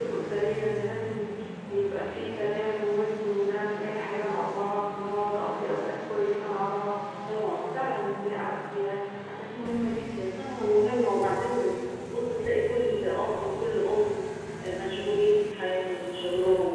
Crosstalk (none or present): none